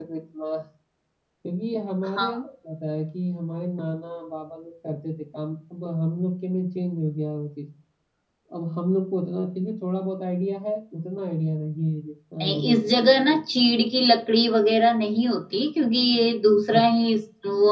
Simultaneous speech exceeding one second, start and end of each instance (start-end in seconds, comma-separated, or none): none